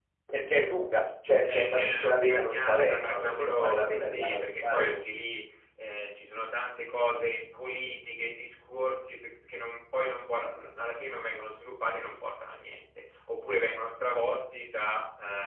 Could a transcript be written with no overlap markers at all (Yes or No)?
No